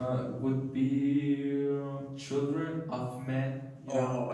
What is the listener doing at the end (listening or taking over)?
taking over